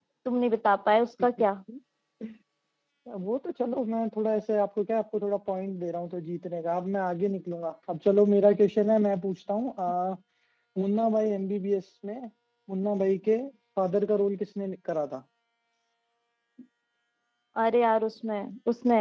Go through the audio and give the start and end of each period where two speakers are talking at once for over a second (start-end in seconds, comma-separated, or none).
none